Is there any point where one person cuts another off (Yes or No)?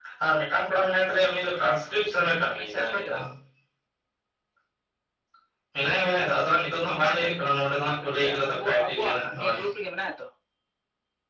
Yes